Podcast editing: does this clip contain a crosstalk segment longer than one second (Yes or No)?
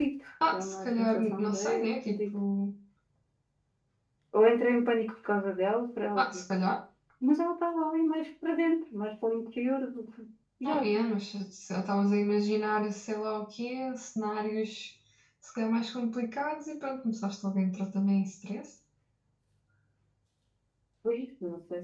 Yes